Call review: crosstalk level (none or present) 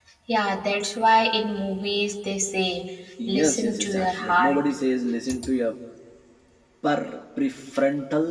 present